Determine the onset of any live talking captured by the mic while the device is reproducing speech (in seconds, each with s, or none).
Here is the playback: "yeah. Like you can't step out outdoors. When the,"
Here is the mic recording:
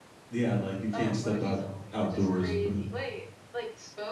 0.9 s